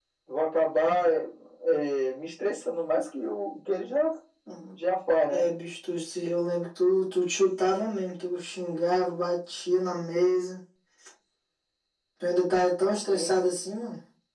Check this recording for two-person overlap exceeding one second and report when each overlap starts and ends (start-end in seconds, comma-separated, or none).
none